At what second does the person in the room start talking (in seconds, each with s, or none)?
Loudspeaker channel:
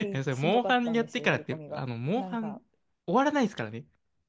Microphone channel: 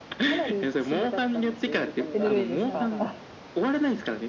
2.1 s